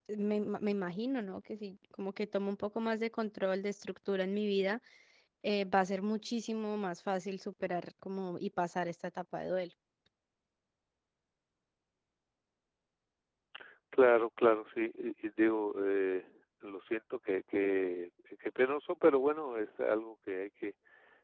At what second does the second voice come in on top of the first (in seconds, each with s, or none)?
none